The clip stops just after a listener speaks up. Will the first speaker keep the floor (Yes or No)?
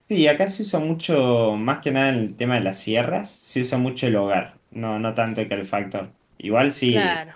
Yes